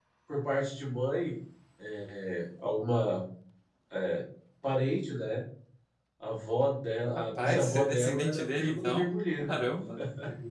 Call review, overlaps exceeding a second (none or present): present